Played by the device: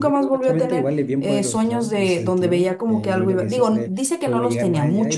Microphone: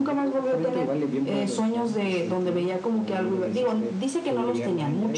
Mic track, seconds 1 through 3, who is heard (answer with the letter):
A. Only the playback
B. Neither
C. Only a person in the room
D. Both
A